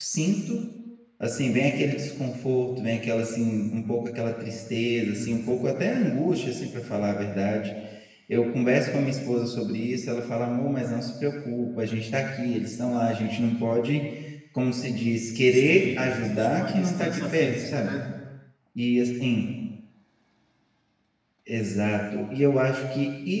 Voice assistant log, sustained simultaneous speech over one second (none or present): present